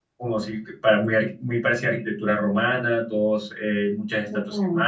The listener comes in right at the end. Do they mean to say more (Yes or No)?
No